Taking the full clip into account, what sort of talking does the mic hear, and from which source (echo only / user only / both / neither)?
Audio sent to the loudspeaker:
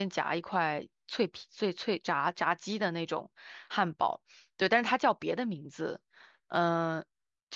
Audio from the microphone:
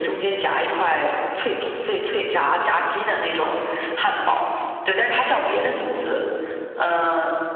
echo only